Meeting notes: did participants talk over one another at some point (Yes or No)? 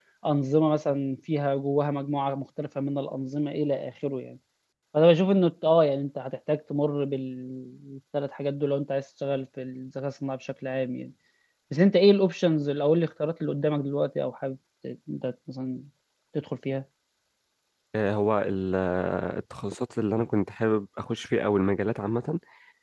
No